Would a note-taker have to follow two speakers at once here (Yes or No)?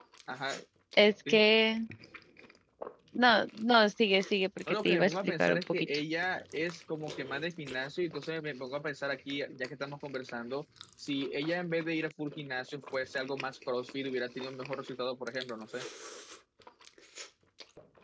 Yes